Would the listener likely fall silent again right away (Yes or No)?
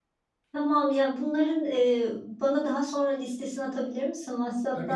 No